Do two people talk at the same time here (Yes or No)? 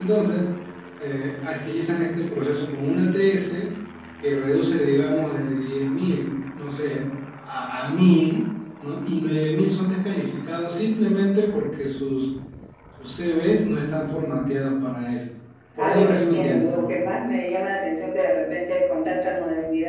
Yes